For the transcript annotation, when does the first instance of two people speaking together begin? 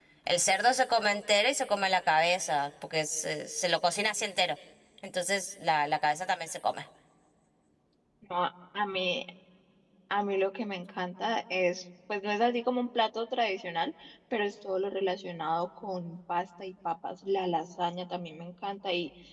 none

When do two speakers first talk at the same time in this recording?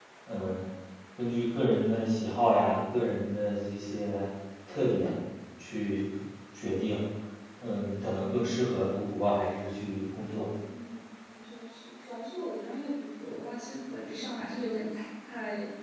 none

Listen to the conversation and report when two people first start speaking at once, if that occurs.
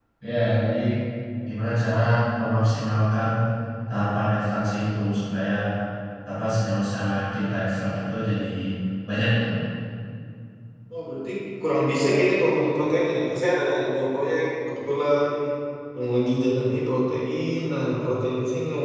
none

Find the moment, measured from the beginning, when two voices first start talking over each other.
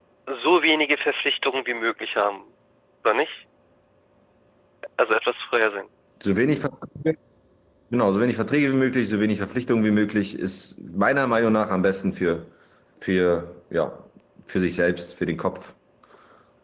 none

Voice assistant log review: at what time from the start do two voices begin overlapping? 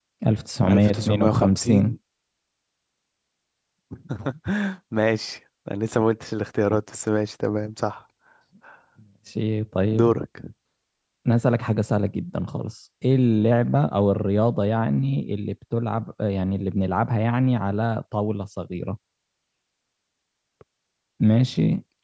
0.7 s

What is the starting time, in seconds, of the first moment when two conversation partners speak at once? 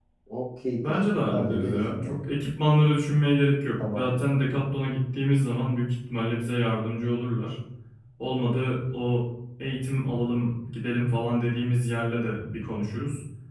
0.8 s

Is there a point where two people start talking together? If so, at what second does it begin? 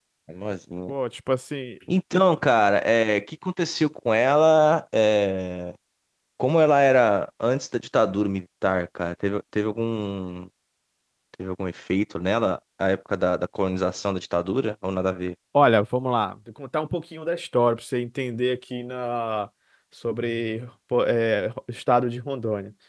none

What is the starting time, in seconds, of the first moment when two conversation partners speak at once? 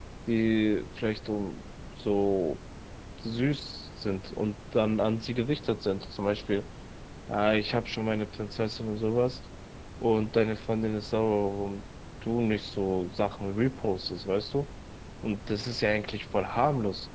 none

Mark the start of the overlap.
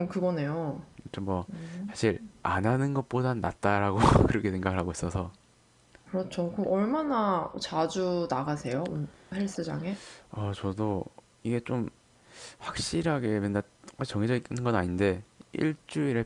none

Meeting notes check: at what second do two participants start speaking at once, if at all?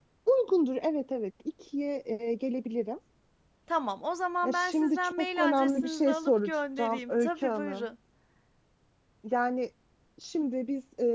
4.4 s

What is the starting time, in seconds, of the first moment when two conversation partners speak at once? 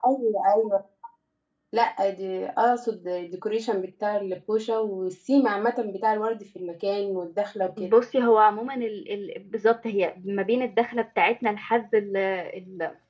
none

